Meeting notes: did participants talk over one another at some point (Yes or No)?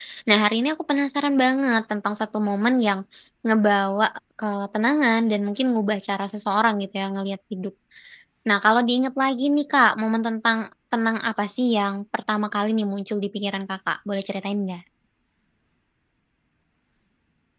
No